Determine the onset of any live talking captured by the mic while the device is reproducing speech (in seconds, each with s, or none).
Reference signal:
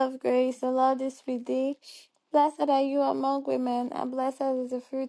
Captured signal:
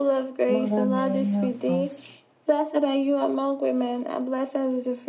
0.5 s